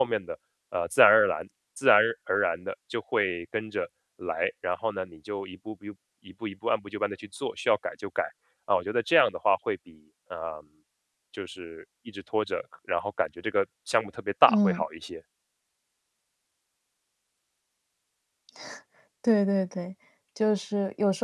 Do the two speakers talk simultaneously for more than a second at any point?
No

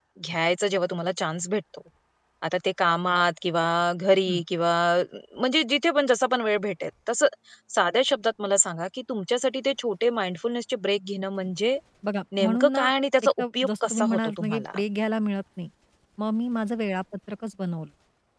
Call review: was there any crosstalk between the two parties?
Yes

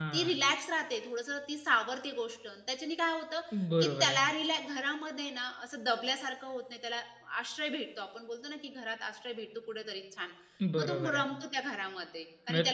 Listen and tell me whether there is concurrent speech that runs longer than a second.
No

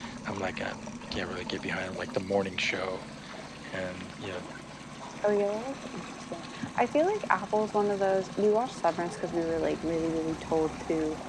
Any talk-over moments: No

